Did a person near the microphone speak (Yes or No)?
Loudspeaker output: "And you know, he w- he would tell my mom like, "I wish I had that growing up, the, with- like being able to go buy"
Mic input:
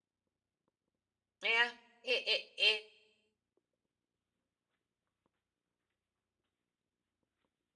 Yes